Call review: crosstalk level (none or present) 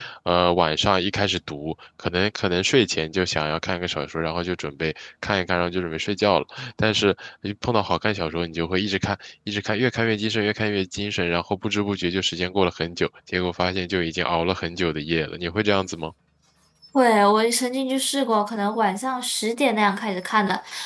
none